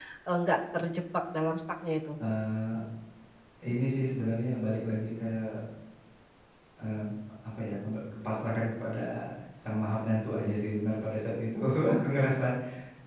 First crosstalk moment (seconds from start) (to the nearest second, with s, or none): none